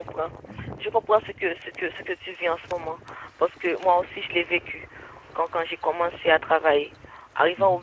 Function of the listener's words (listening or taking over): listening